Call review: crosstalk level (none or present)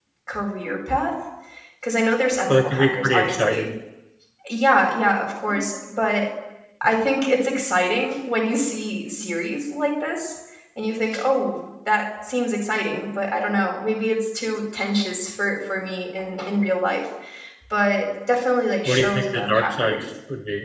present